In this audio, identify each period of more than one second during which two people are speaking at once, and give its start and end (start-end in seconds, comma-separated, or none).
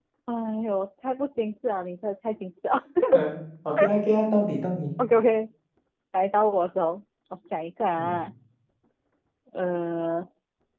none